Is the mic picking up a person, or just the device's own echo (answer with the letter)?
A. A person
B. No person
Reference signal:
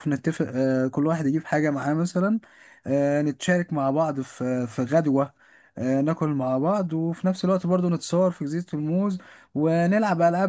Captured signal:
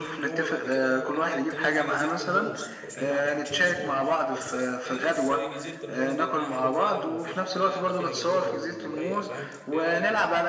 A